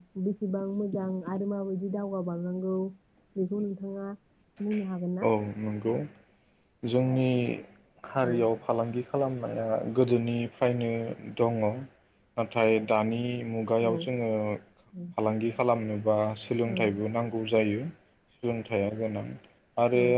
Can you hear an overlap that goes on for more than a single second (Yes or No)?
No